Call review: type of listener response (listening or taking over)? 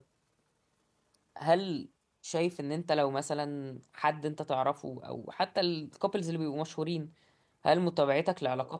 listening